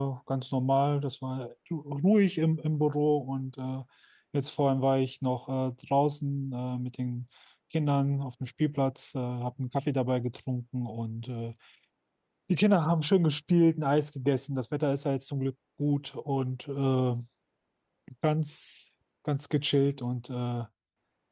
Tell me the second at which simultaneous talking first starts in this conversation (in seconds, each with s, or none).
none